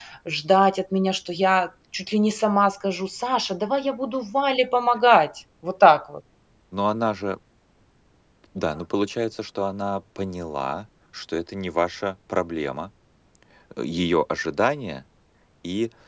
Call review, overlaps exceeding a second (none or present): none